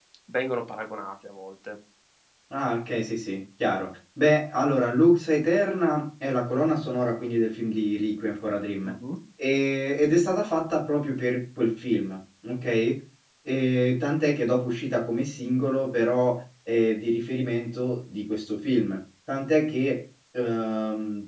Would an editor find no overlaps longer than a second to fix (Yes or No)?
Yes